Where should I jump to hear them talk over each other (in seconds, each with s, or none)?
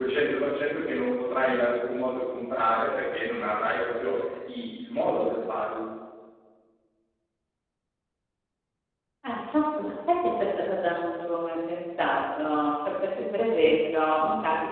none